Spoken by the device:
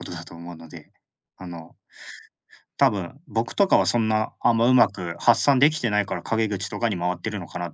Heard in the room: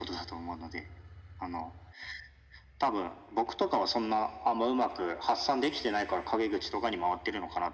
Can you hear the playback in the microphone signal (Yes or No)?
Yes